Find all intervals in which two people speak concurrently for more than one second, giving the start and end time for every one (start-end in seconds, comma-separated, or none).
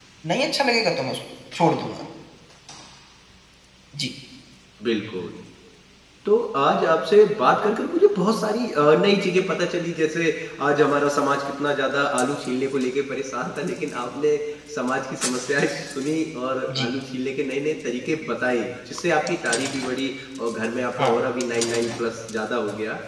none